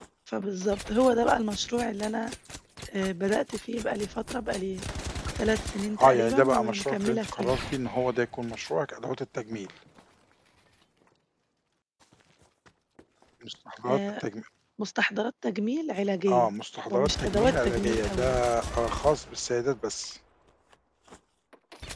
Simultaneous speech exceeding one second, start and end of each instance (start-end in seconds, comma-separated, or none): 6.0-7.5, 16.9-18.4